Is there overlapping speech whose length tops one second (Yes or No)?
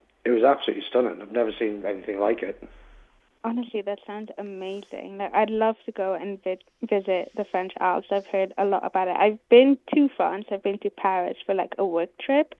No